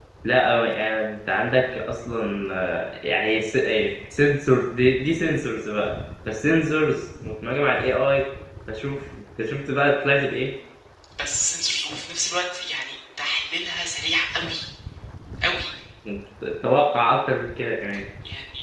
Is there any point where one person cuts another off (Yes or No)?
No